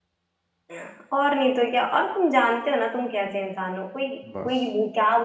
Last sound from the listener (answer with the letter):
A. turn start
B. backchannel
B